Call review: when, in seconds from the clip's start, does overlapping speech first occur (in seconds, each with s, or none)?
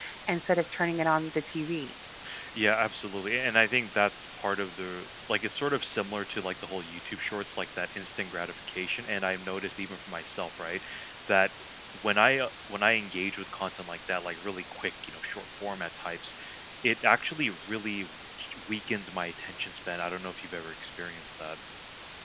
none